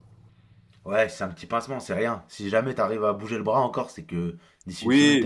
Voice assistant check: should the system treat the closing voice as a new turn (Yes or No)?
Yes